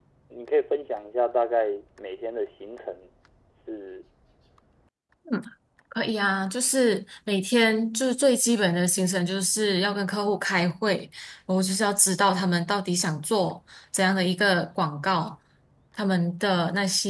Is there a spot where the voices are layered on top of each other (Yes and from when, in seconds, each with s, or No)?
No